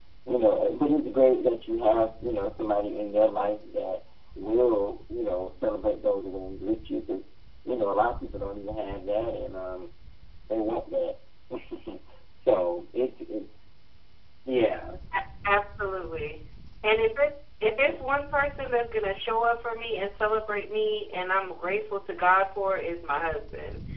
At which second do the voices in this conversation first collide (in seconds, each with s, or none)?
none